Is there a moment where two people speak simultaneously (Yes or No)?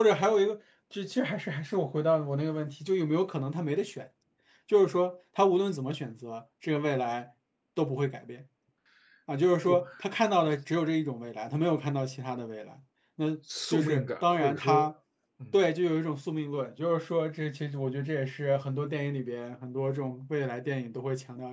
Yes